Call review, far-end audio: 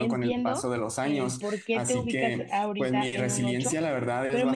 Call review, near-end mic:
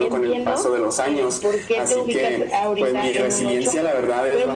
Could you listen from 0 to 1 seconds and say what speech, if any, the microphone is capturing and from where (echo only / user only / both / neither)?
echo only